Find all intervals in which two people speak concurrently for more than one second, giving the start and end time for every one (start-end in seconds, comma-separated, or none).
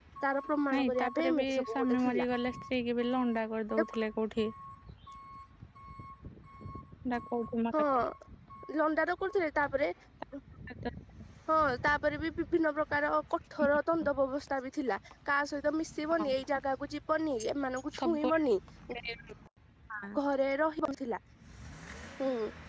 0.7-2.3